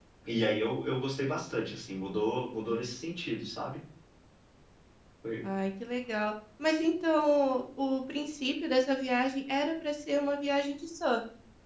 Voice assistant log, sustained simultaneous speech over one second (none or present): none